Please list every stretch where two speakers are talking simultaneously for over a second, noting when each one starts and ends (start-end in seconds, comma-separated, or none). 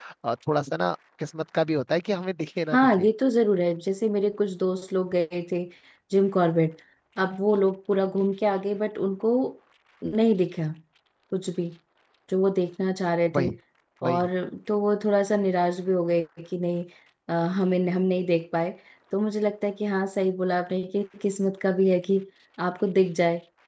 none